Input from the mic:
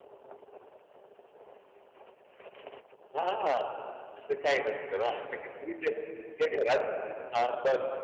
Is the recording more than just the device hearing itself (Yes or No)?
Yes